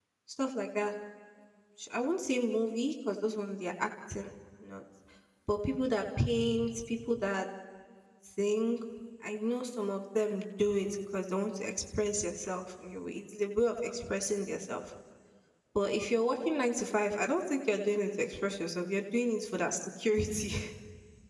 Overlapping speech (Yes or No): No